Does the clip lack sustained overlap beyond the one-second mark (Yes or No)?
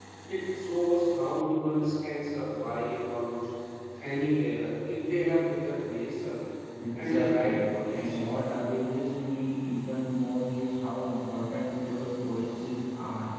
No